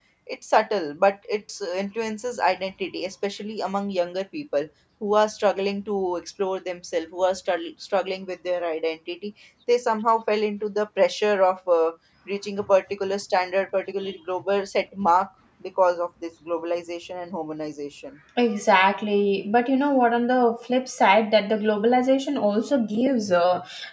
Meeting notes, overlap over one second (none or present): none